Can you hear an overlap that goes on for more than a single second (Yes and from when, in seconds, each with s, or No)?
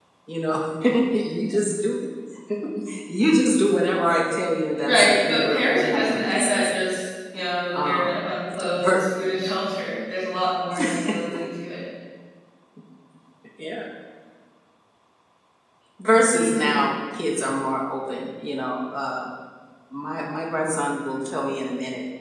Yes, from 4.8 s